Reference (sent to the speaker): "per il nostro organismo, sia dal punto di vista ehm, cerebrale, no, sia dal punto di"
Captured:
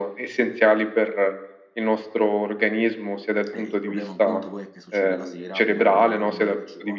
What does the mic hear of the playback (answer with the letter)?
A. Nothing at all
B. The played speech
B